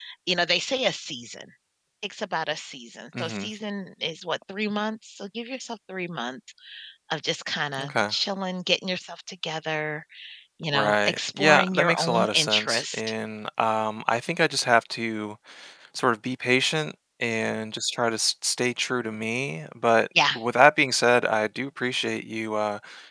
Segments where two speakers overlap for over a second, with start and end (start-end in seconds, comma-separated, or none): 10.7-13.1